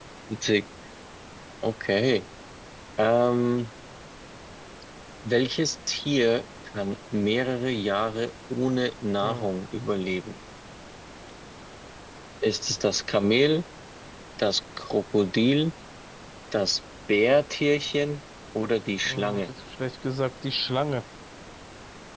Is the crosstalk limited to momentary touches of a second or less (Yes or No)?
Yes